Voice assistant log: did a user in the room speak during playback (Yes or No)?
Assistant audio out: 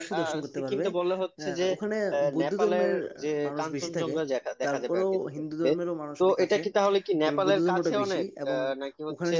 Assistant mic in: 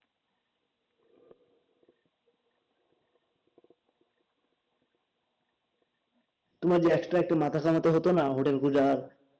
Yes